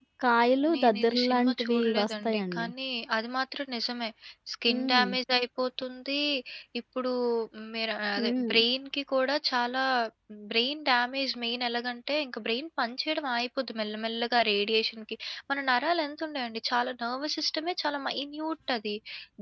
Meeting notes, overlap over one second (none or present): present